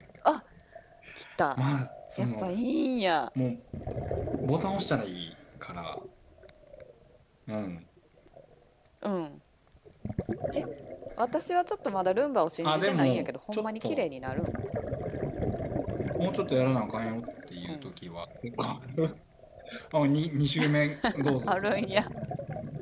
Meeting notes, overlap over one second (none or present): present